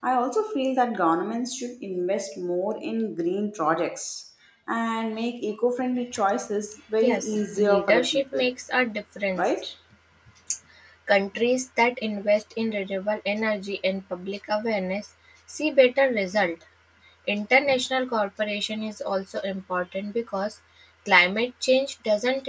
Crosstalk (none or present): present